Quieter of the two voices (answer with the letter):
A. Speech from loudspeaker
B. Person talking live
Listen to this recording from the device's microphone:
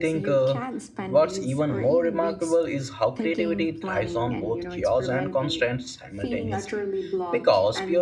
A